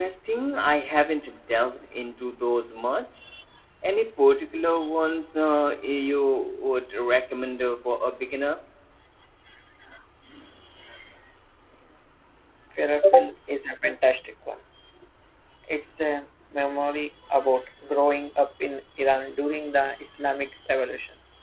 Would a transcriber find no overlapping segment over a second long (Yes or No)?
Yes